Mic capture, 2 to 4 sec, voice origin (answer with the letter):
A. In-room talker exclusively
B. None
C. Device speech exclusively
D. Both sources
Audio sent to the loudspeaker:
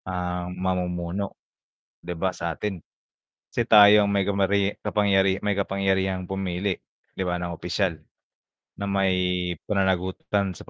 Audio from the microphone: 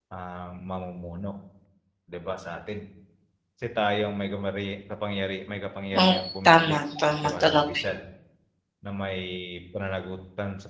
C